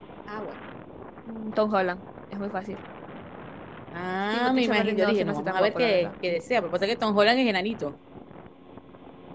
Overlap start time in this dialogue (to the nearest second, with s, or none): 4 s